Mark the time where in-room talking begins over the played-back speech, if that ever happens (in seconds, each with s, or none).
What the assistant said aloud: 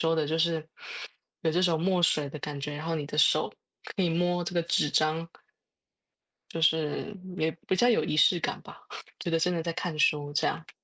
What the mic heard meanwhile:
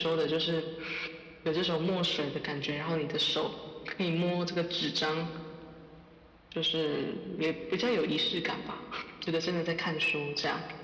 none